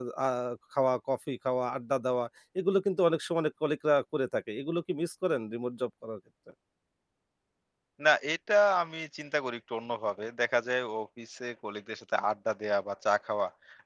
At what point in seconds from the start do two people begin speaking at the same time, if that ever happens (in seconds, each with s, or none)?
none